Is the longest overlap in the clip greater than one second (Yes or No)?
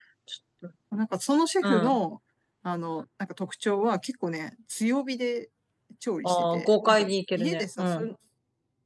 Yes